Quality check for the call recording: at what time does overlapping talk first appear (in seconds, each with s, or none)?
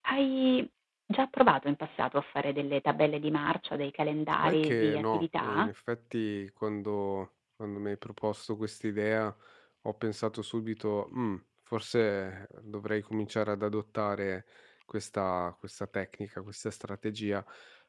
4.4 s